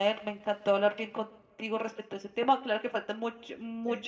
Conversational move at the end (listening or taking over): listening